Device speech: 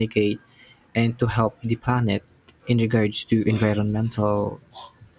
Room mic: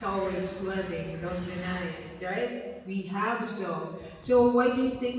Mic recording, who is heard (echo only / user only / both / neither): user only